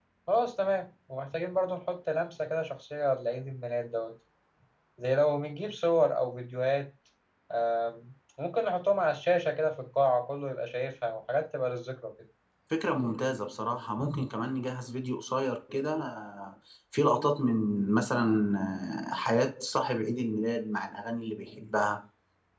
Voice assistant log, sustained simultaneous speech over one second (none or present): none